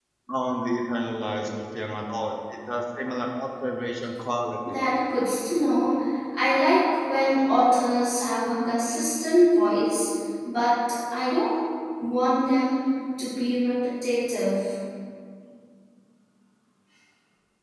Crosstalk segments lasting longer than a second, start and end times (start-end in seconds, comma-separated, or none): none